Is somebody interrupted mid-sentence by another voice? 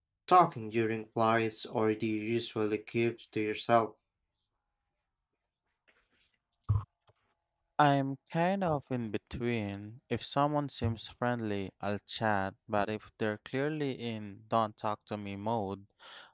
No

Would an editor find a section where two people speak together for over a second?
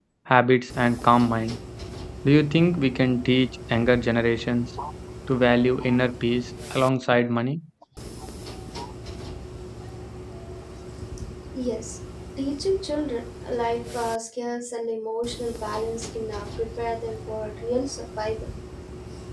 No

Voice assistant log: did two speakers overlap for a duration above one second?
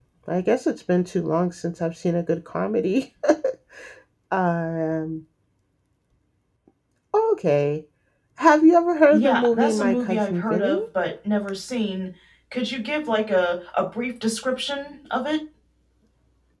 Yes, from 9.1 s

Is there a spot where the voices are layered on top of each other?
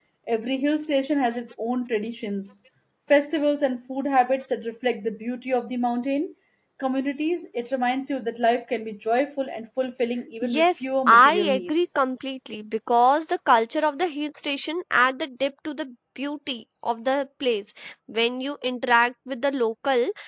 Yes, from 10.4 s

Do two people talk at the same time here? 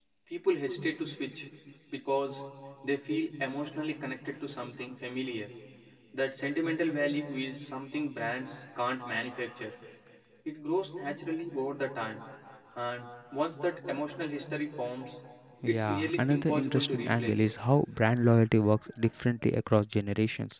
Yes, from 15.6 s

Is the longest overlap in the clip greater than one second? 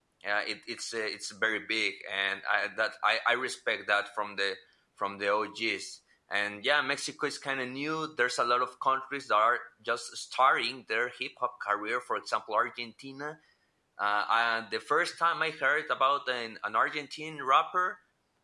No

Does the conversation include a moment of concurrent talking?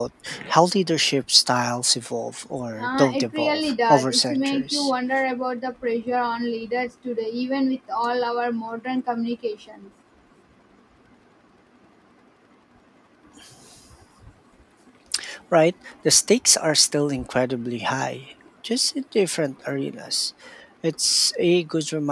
Yes, from 2.8 s

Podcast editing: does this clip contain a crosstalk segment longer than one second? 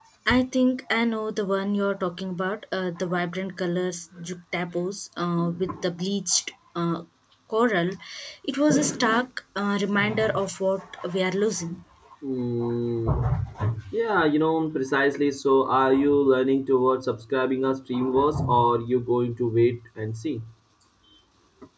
No

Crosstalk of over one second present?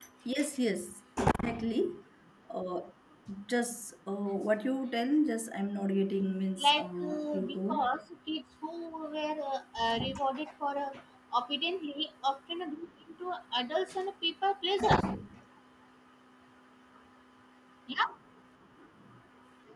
Yes, from 6.6 s

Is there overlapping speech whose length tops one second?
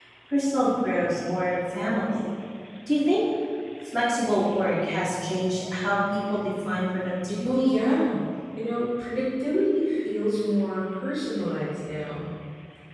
No

